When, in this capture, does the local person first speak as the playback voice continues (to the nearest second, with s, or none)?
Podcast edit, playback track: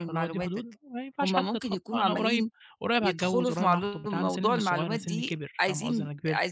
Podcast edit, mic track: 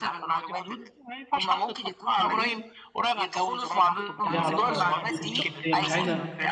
4 s